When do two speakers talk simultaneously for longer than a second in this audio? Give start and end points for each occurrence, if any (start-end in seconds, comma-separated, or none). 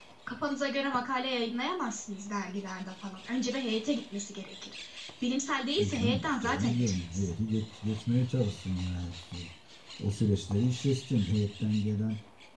5.8-7.3